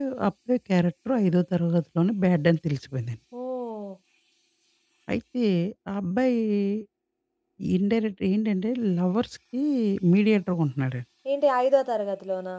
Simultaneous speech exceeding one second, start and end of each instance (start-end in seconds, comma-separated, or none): none